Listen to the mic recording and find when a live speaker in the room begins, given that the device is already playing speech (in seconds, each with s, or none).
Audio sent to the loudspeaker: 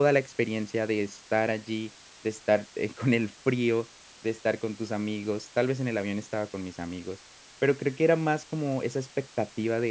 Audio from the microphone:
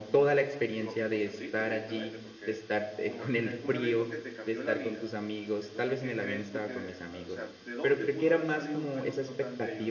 0.8 s